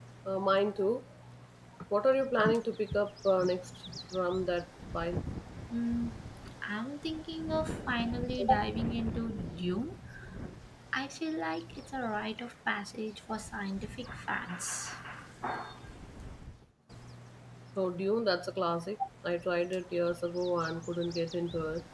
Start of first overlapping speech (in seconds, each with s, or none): none